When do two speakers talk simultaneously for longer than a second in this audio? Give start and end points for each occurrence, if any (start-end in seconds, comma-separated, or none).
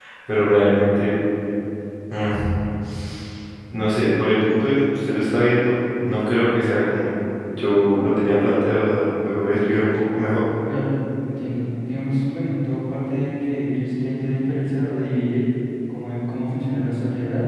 none